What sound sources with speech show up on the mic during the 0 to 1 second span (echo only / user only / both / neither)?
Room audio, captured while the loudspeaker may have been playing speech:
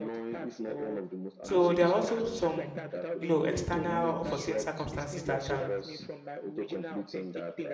echo only